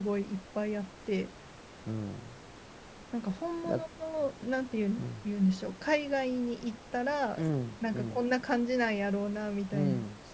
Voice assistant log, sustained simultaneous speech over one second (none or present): none